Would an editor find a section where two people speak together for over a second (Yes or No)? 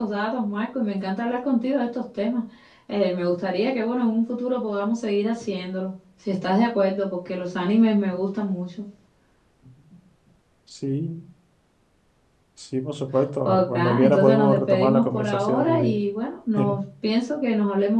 Yes